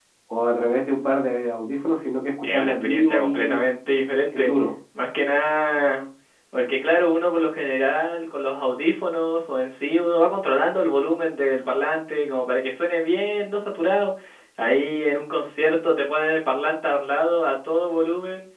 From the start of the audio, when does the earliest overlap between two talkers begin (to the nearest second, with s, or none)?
2 s